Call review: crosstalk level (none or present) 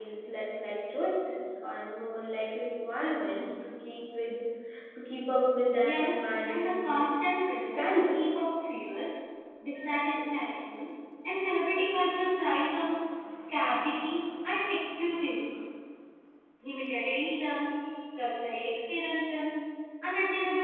present